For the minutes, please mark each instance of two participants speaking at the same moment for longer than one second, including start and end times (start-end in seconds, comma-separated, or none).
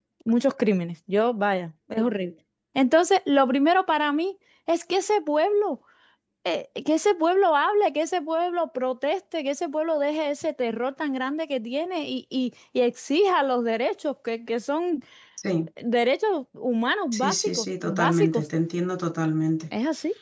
17.1-18.4